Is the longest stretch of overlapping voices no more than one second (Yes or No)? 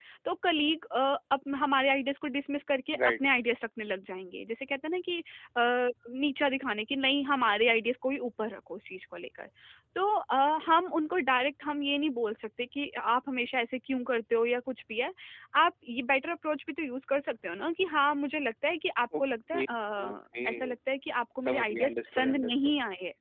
No